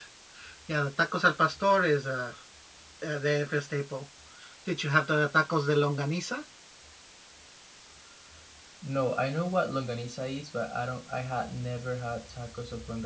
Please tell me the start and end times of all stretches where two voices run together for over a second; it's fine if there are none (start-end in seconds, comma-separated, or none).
none